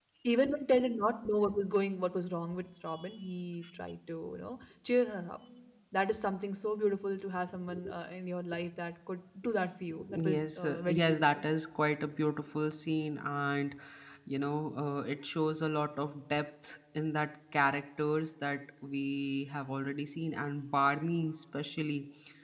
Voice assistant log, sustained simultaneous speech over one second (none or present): present